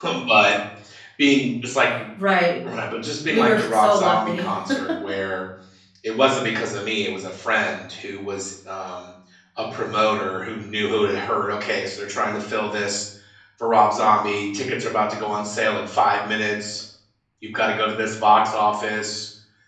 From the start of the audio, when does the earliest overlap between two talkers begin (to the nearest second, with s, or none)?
3 s